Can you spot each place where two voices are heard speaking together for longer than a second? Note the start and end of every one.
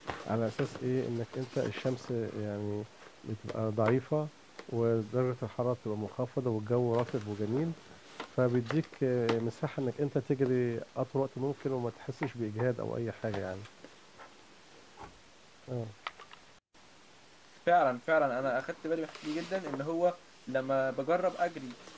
none

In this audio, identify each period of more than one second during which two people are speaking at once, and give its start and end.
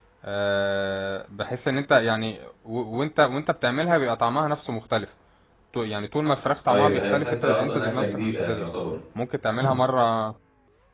6.7-8.7

